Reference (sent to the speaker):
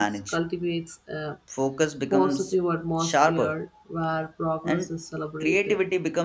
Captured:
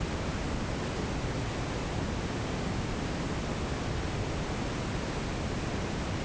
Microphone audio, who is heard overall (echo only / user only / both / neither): neither